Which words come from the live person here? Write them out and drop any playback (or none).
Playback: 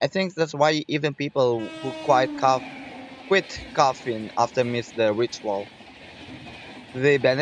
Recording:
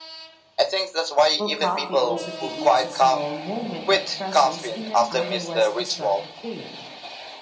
Well, coffee also creates a small moment of presence in an otherwise distracted day.